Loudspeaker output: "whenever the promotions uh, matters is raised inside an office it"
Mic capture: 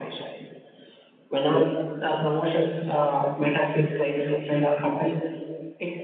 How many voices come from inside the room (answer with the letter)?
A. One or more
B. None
B